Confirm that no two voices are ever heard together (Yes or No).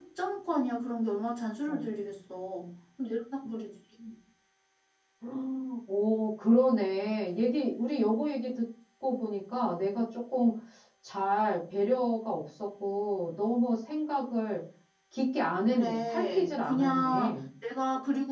No